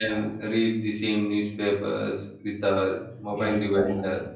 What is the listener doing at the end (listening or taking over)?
taking over